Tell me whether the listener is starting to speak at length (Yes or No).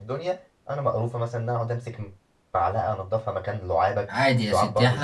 Yes